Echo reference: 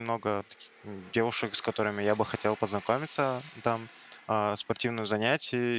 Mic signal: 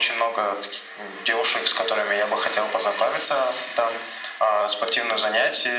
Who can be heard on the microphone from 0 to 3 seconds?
echo only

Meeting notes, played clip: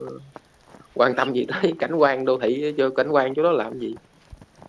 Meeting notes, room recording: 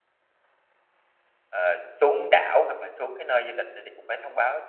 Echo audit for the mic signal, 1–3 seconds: user only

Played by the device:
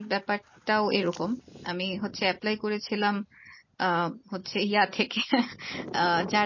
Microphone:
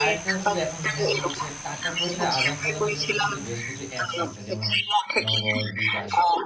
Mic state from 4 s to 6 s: both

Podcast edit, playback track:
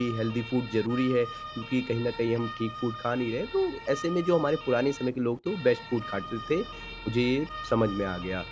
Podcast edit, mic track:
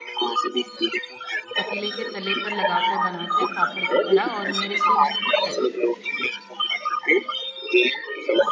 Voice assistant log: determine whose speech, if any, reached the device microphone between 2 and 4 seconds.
both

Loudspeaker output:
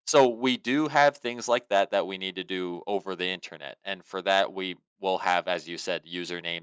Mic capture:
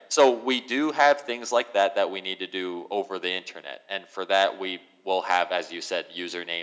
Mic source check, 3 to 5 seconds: echo only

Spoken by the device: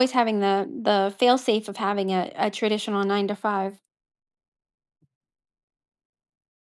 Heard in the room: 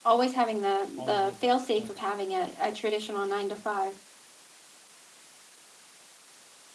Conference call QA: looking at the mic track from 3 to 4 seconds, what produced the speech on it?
echo only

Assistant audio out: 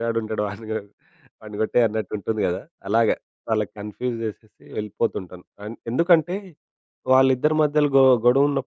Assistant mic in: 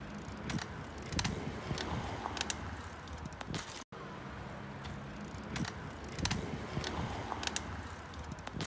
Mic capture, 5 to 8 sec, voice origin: neither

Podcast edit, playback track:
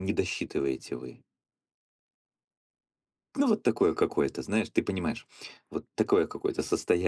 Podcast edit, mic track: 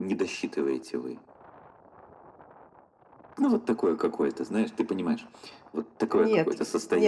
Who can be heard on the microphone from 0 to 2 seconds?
echo only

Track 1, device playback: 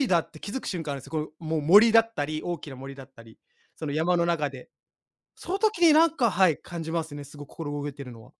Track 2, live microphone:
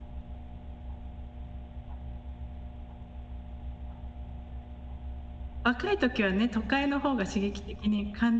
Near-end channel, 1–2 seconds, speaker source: neither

